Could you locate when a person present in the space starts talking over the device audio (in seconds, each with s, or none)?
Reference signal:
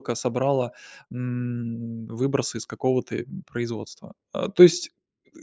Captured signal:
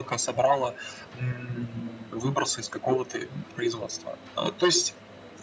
none